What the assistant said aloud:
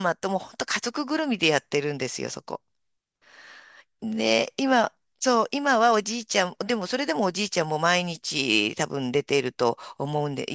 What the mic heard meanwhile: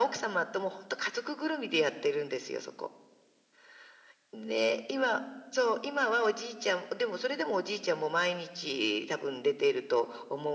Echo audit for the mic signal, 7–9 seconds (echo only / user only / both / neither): echo only